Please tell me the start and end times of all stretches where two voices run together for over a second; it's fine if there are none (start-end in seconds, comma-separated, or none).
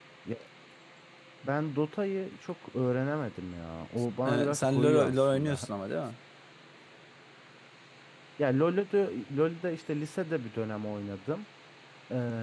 4.2-5.7